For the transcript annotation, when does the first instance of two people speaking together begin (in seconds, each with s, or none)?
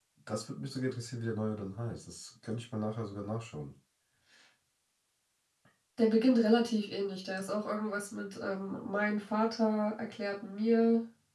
none